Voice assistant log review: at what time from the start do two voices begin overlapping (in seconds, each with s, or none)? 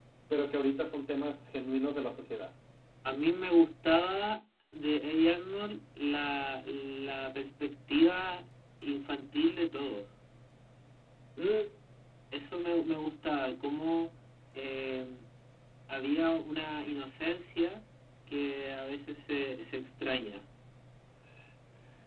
none